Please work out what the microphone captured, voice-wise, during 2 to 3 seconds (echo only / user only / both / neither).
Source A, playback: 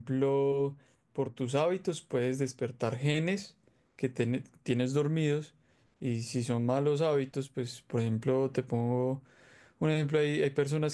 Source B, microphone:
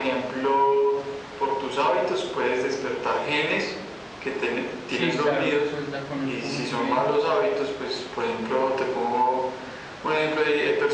echo only